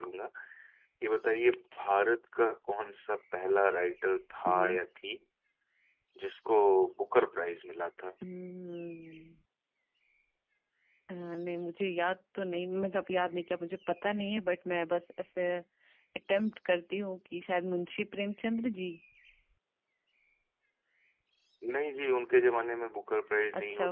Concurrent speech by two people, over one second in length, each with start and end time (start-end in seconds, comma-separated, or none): none